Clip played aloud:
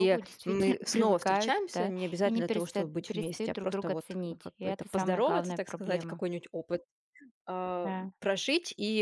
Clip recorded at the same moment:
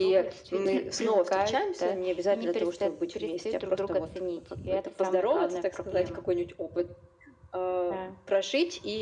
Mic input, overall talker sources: echo only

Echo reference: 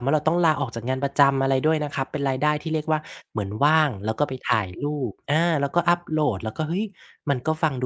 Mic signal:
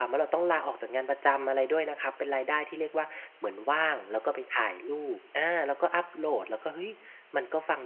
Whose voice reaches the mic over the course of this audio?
echo only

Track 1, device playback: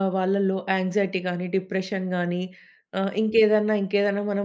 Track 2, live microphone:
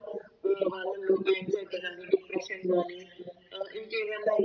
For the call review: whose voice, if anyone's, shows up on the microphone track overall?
echo only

